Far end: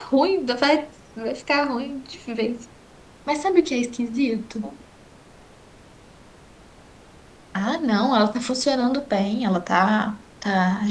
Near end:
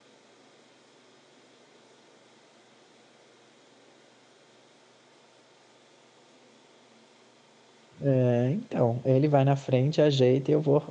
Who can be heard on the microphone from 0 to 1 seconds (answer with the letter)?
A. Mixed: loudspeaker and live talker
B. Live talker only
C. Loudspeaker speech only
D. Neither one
D